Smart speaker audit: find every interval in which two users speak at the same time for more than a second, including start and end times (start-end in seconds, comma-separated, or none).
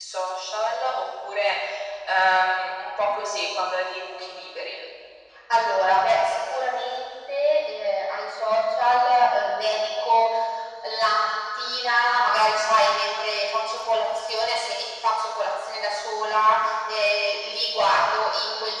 none